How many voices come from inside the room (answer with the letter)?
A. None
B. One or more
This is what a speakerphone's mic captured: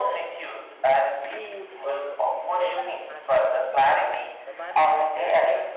B